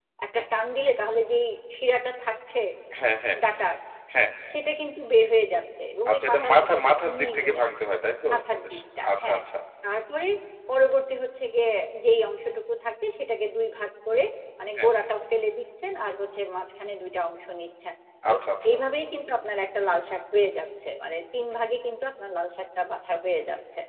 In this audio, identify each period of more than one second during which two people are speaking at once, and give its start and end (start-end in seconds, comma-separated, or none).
6.1-7.7